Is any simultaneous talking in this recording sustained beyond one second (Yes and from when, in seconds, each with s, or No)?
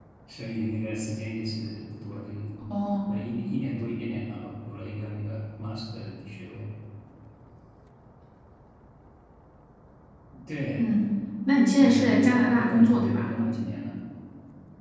Yes, from 11.8 s